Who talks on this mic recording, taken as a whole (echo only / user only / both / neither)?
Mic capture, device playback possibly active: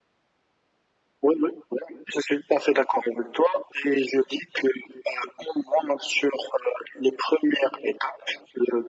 echo only